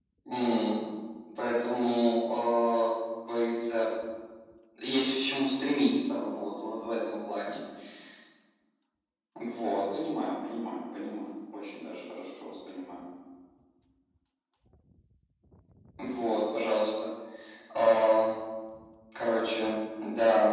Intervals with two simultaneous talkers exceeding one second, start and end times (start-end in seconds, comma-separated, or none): none